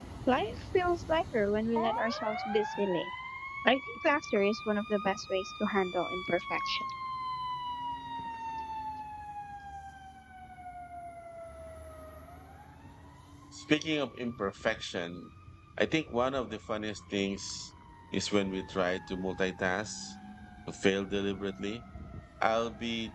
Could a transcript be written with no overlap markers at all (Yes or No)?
Yes